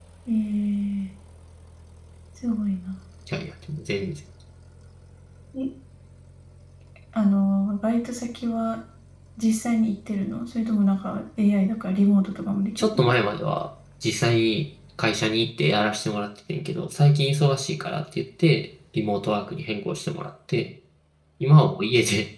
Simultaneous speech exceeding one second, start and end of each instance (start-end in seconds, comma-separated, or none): none